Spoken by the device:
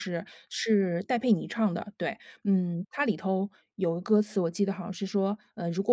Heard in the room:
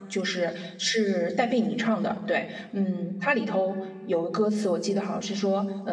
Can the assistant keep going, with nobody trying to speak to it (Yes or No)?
Yes